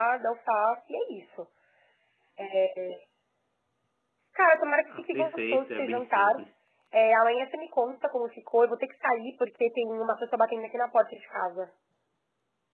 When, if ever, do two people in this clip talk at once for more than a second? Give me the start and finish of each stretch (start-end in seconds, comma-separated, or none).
5.0-6.4